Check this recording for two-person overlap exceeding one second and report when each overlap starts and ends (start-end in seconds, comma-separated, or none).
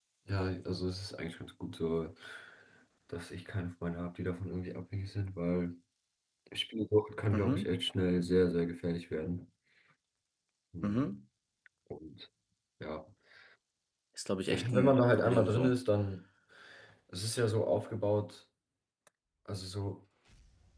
14.5-15.7